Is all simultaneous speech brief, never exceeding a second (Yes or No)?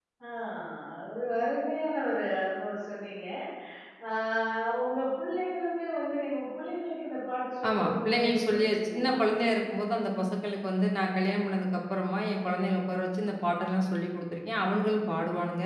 No